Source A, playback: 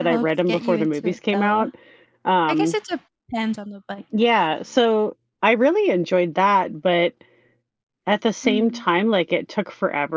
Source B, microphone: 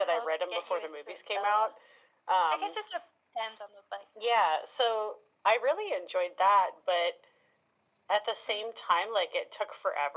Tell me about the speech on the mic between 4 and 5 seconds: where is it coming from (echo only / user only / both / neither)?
echo only